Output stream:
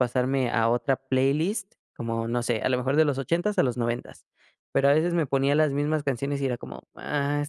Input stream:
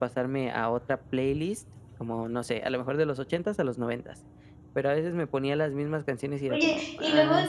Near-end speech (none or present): present